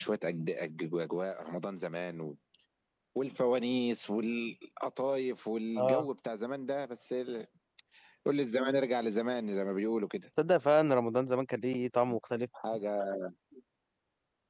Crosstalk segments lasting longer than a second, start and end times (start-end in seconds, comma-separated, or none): none